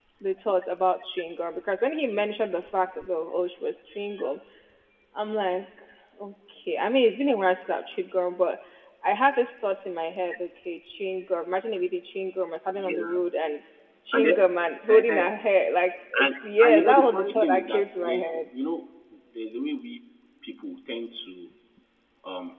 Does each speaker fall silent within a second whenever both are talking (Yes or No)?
No